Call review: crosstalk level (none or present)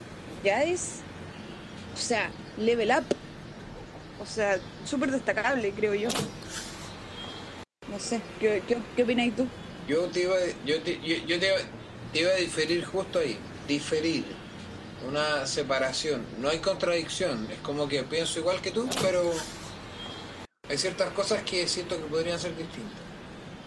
none